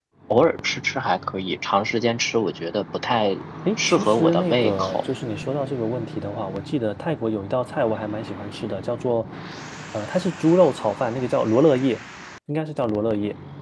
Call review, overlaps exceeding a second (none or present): present